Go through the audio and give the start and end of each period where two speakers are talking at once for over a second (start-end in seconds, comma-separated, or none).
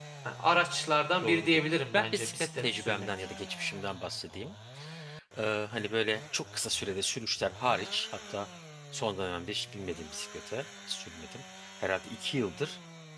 1.2-3.1